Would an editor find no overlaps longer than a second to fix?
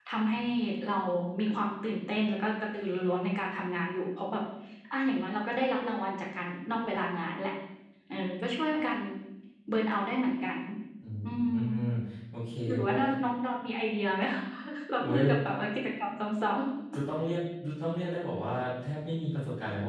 Yes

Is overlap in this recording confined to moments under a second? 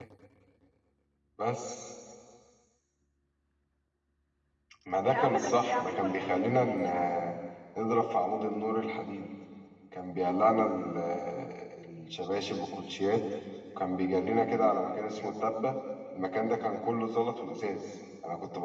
No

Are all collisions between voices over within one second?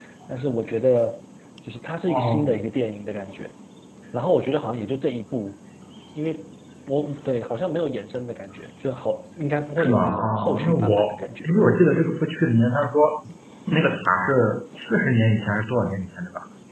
No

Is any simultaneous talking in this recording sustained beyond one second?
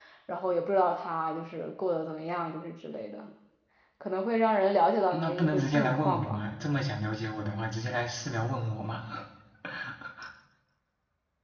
Yes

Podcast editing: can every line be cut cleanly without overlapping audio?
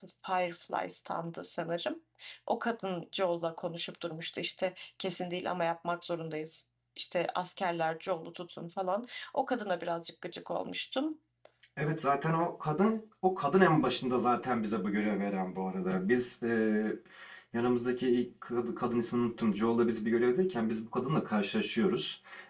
Yes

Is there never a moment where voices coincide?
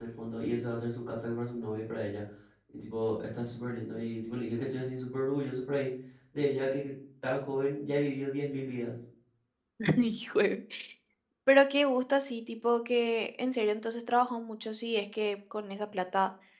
Yes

